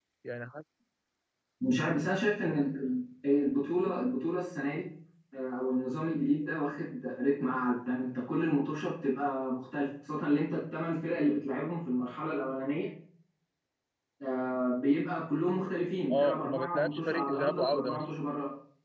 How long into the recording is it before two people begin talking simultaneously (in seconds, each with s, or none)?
16.1 s